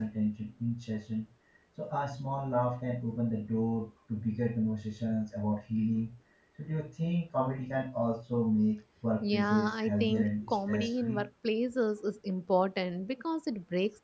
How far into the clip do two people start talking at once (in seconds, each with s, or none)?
9.2 s